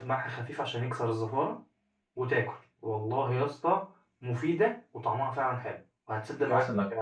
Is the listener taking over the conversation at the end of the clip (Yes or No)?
Yes